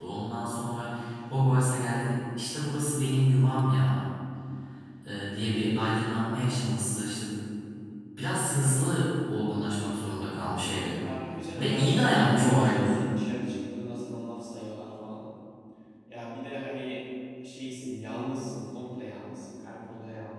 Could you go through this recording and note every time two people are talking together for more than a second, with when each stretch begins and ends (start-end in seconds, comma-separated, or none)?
11.5-13.0